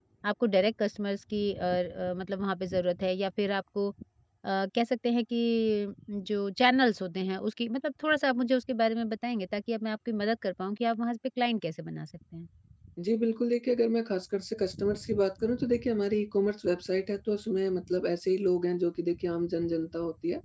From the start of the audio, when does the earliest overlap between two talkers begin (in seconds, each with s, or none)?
none